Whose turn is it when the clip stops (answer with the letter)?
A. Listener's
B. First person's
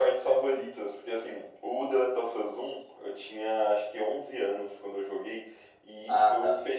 B